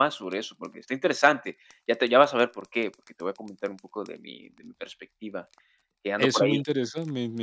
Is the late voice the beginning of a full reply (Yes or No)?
Yes